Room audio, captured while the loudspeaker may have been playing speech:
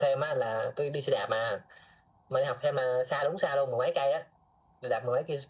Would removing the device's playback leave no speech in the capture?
Yes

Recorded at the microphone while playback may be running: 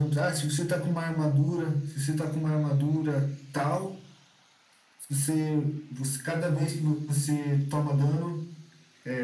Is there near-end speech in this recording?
No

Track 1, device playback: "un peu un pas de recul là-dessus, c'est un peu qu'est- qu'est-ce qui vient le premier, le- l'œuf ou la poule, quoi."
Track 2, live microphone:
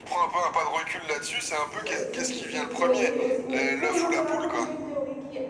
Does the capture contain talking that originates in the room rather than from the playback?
Yes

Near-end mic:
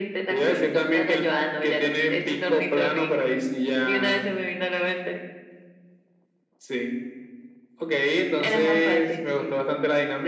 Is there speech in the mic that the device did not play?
No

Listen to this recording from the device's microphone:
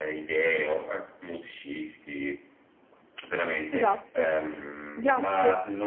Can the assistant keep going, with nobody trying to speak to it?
No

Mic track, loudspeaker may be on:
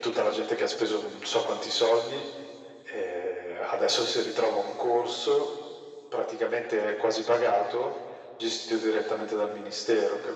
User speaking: No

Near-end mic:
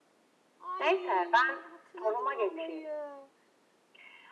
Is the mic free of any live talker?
No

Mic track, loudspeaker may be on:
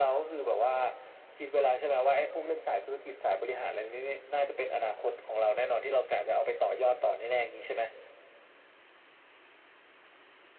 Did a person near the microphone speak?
No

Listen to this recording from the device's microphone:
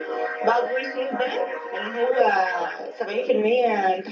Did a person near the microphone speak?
No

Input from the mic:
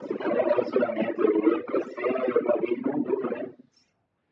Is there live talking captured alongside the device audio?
No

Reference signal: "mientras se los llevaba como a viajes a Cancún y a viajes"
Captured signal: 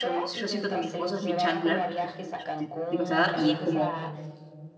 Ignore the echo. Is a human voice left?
Yes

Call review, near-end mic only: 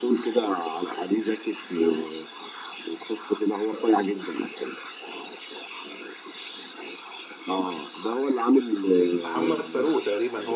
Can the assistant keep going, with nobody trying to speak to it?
No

